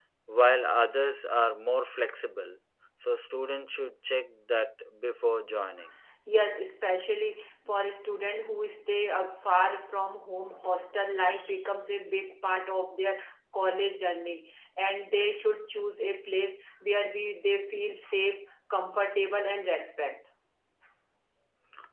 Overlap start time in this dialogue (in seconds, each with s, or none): none